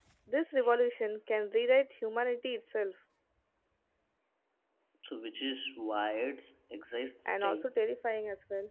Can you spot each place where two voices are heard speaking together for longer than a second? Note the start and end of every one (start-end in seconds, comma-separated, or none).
none